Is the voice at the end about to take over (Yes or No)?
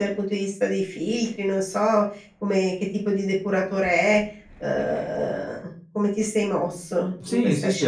Yes